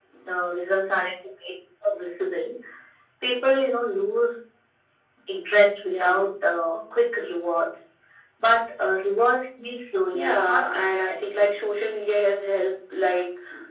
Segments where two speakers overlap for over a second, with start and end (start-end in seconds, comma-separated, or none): 10.1-11.5